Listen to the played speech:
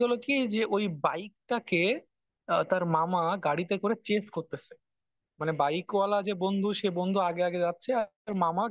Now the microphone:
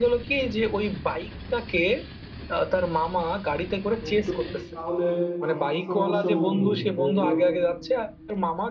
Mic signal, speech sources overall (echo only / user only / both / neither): both